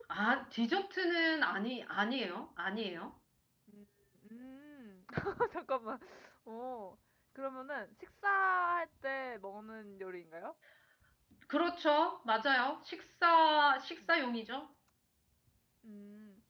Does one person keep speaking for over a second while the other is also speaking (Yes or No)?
No